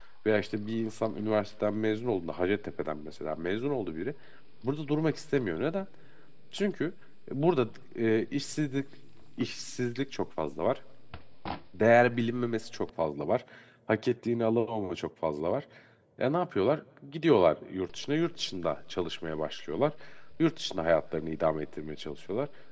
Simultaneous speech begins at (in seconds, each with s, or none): none